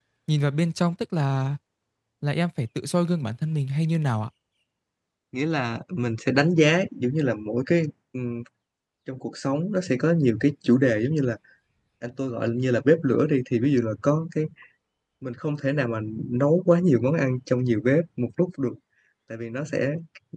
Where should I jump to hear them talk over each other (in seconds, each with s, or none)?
none